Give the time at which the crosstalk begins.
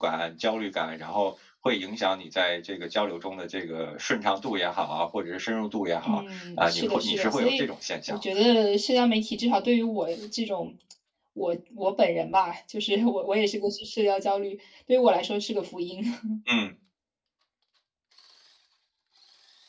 6.0 s

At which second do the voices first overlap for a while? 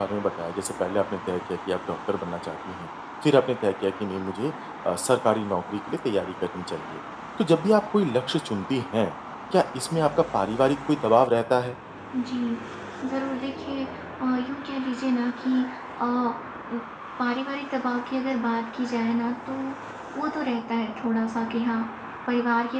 none

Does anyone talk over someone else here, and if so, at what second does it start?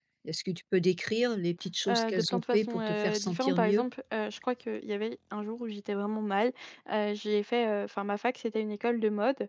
1.9 s

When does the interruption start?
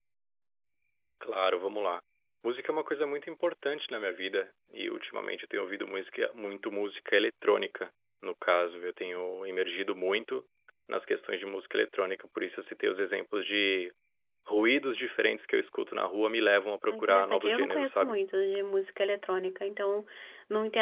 16.9 s

